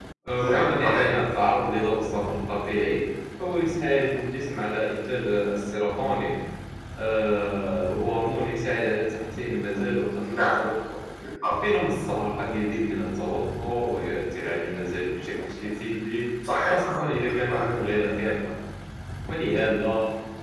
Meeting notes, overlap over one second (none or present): present